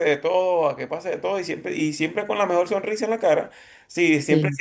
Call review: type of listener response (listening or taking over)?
listening